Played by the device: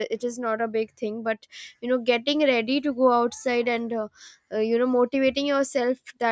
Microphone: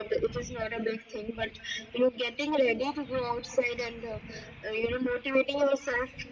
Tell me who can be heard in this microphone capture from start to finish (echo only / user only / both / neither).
echo only